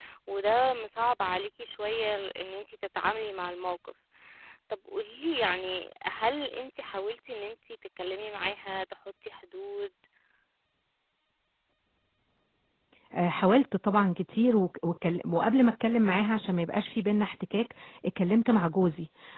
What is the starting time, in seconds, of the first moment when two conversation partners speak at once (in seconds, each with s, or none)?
none